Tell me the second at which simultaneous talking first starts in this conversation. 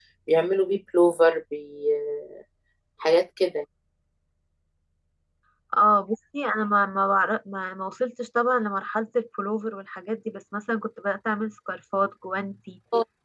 none

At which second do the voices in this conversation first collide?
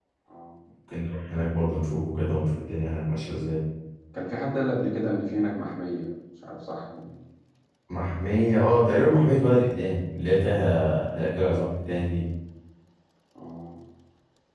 none

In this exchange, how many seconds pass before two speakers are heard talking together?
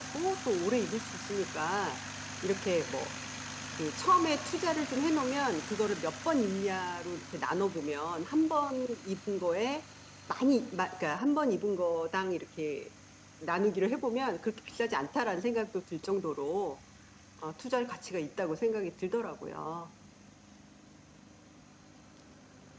none

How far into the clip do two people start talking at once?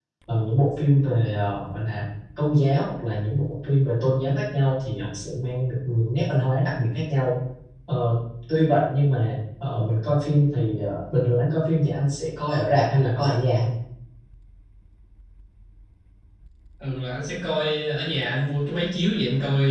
none

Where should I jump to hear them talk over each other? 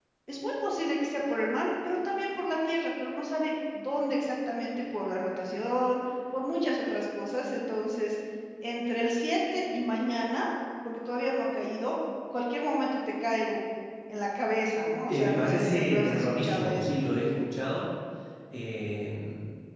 15.1 s

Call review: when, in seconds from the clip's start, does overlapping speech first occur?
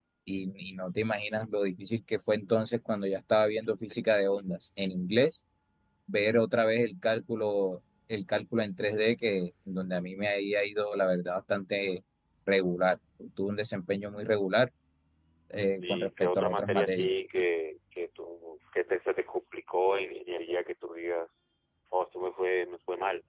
15.8 s

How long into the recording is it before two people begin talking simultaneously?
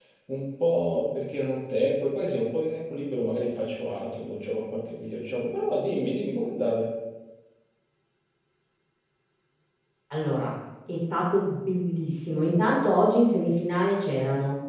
none

